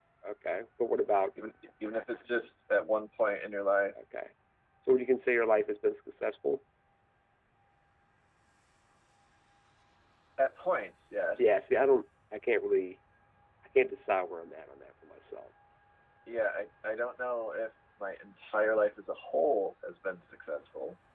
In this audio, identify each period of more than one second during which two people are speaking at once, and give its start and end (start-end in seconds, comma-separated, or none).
none